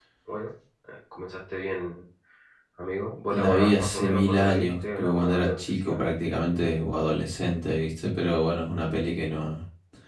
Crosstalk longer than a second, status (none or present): present